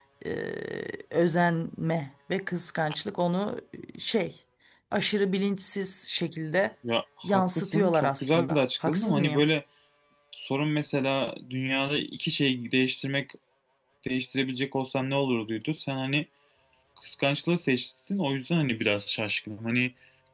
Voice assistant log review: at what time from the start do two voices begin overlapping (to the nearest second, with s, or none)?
7 s